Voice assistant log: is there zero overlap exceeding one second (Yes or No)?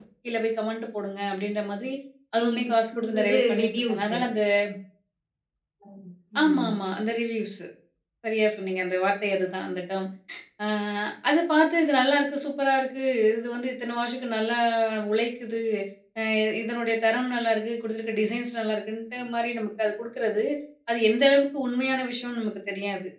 No